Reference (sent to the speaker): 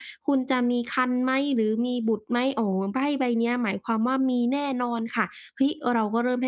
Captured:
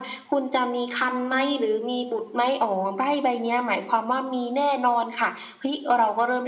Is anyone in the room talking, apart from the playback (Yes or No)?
No